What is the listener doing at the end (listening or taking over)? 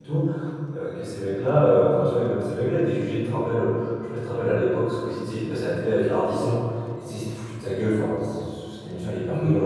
listening